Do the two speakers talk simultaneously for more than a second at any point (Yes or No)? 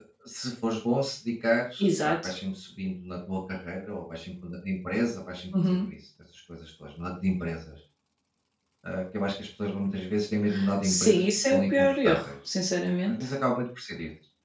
Yes